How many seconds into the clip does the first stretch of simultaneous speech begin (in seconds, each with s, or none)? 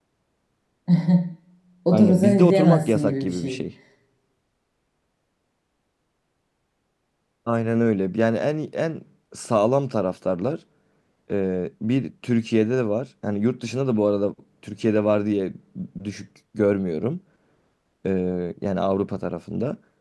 1.9 s